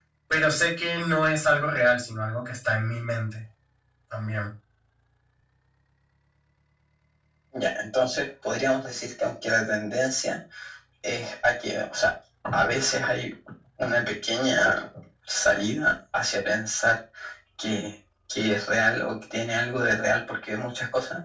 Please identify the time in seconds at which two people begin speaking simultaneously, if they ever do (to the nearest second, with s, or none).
none